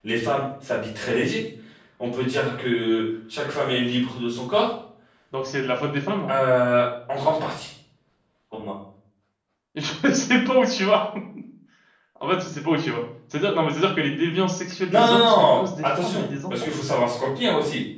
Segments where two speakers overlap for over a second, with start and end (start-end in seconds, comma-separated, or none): 14.9-16.5